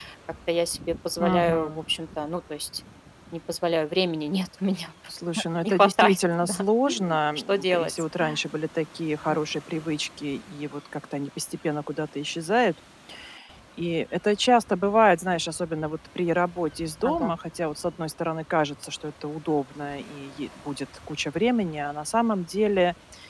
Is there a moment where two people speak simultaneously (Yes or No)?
Yes